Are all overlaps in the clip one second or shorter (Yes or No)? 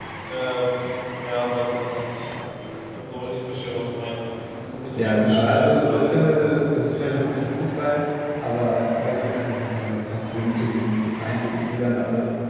No